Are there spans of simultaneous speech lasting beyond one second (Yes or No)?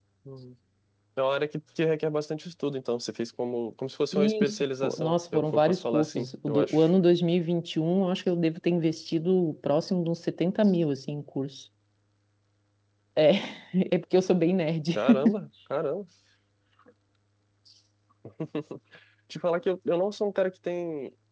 Yes